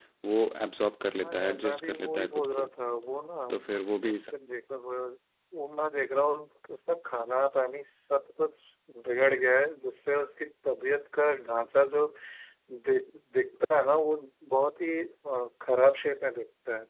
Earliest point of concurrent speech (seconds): 1.2 s

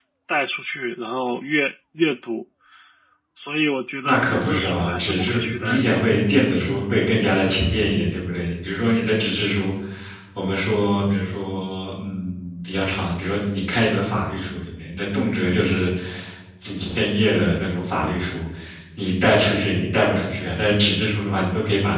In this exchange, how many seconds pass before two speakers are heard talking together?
4.0 s

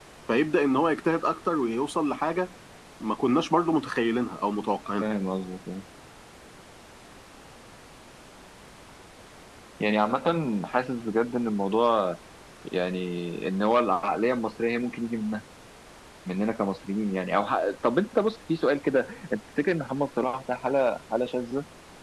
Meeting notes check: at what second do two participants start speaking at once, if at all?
none

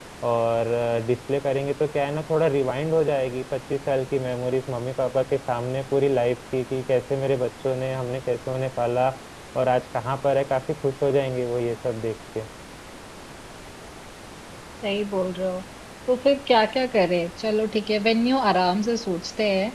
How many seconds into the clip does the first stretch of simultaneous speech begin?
none

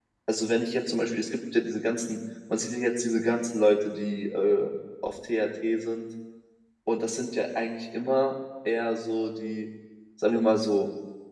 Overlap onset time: none

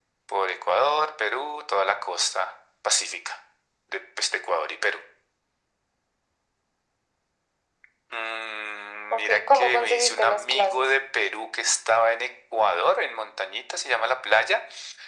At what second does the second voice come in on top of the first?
9.1 s

